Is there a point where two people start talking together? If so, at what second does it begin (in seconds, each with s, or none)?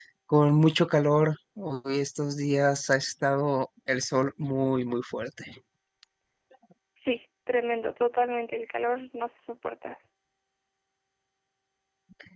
none